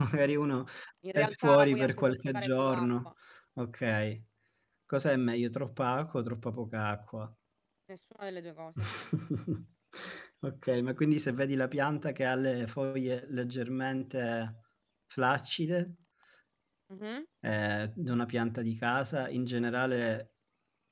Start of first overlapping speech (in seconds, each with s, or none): 1.1 s